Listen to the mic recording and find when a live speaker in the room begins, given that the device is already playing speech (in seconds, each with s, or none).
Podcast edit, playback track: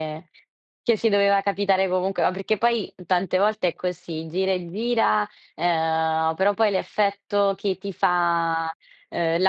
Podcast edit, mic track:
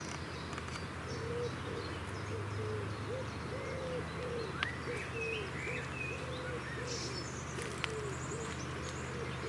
none